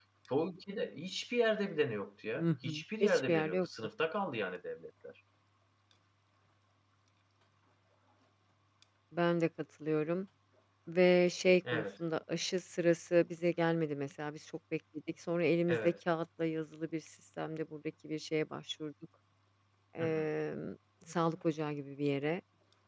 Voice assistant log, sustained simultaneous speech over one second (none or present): present